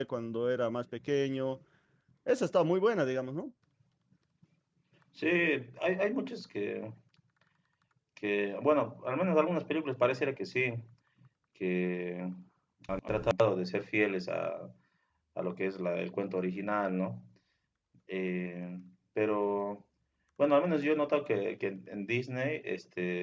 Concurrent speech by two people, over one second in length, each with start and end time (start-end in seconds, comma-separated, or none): none